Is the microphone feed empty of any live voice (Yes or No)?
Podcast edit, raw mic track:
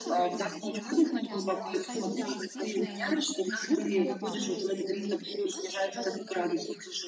No